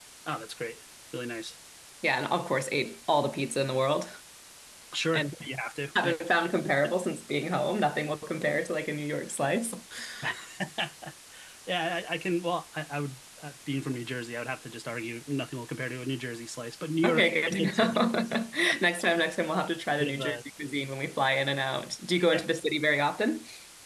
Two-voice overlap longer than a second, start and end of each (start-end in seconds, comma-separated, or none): 17.0-18.4